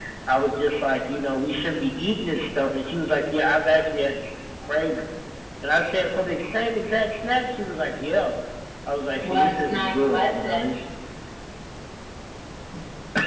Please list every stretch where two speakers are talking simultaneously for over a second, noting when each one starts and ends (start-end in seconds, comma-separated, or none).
9.2-10.6